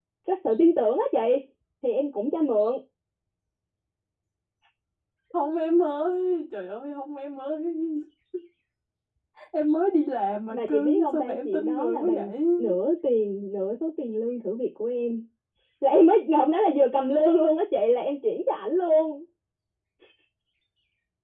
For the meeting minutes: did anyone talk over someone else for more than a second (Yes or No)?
Yes